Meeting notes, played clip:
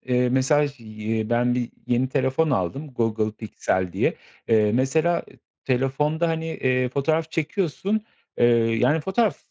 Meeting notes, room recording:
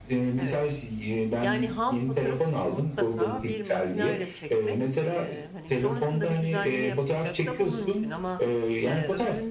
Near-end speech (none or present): present